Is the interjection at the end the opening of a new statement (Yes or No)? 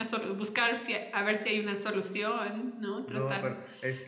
Yes